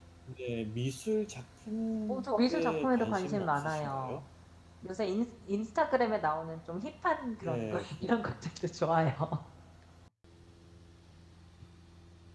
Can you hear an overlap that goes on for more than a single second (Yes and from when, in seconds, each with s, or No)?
Yes, from 2.1 s